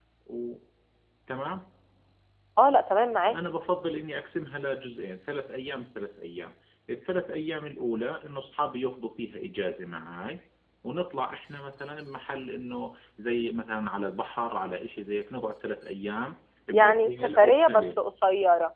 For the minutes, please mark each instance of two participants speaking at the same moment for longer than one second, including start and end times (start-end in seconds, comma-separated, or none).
16.7-17.9